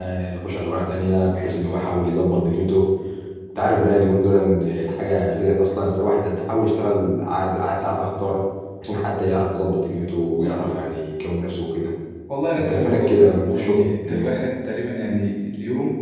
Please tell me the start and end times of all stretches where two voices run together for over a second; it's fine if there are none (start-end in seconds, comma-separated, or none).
12.6-14.3